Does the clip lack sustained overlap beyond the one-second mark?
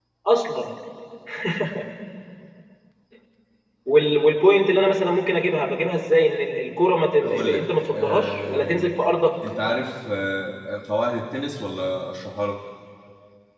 No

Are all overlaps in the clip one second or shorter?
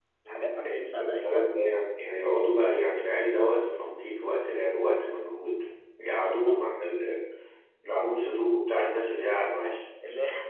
No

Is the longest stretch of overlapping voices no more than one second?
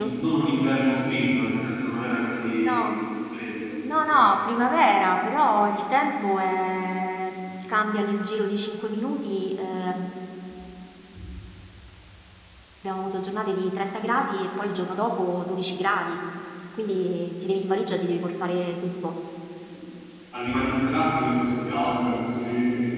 Yes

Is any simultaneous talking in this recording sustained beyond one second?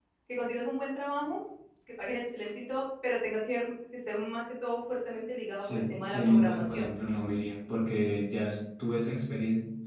Yes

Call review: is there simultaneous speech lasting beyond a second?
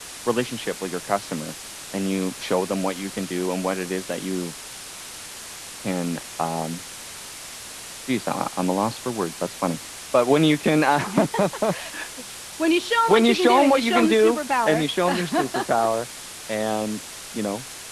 Yes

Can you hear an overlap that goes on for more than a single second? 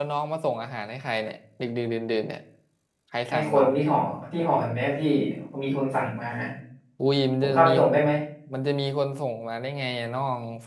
No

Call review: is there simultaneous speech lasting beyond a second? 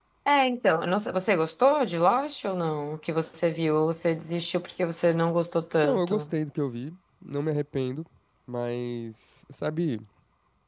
No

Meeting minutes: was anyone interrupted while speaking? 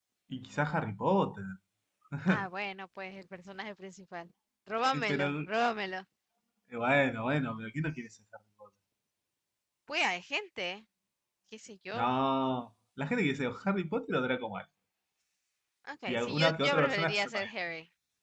Yes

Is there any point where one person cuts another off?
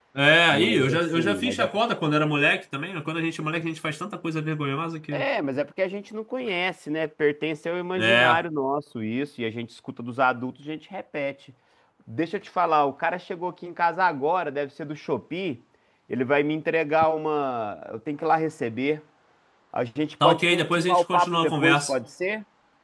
Yes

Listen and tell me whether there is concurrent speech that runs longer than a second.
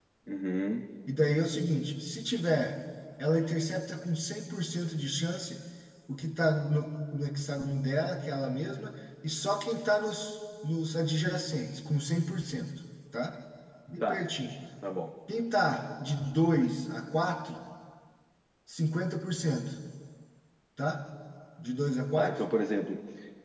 No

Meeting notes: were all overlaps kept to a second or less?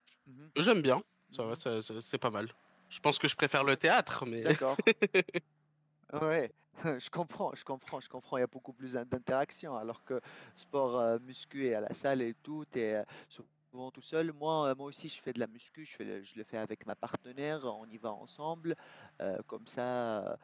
Yes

